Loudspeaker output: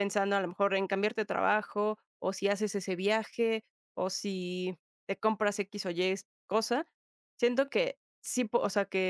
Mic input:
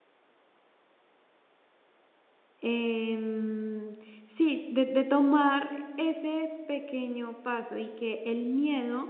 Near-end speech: present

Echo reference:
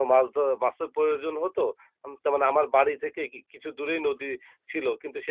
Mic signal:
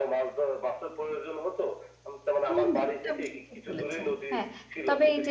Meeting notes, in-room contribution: present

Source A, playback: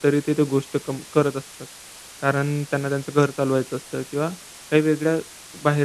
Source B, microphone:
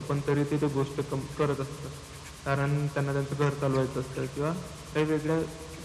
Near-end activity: none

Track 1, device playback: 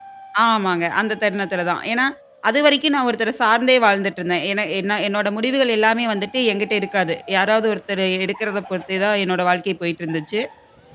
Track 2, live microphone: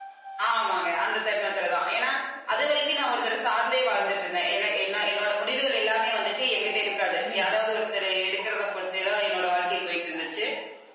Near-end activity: present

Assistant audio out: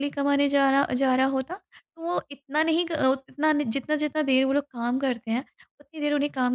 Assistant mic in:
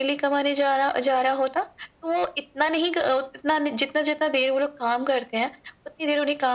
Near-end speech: none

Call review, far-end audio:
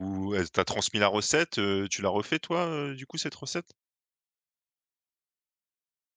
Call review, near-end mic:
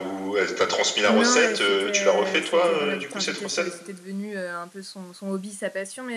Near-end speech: present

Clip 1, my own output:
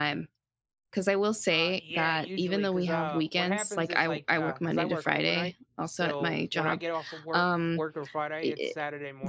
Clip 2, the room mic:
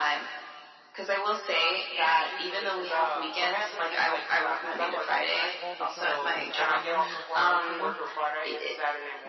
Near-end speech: present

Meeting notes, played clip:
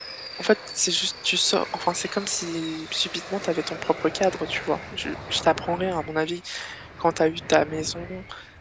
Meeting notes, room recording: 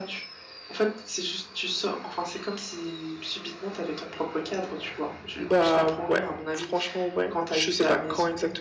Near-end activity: present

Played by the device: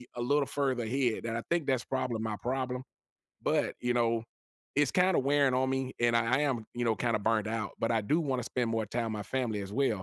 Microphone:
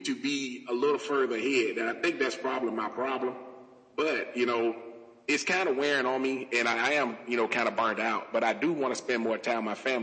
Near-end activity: none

